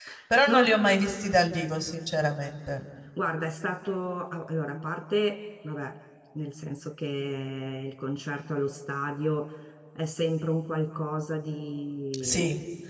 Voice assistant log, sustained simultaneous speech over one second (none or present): none